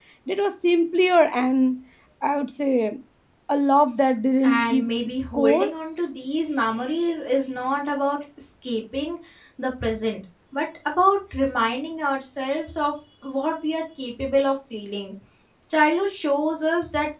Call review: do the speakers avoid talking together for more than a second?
No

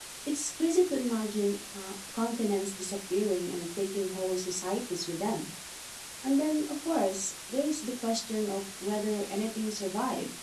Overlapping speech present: No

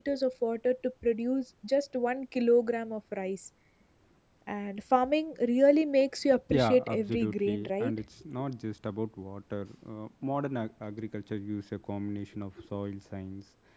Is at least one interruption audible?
Yes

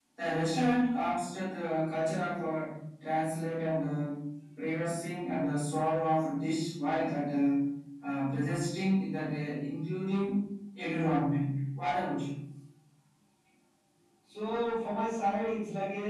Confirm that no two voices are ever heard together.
Yes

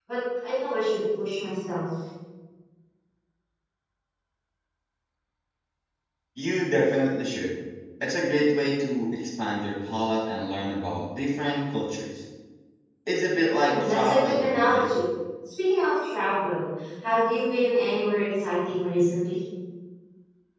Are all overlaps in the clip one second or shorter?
No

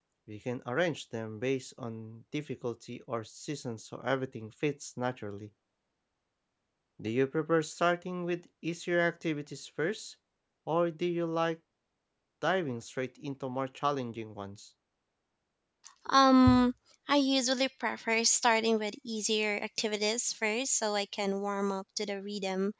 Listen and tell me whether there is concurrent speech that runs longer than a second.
No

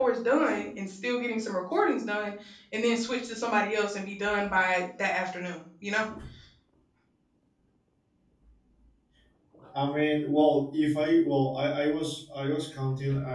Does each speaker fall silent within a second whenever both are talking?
Yes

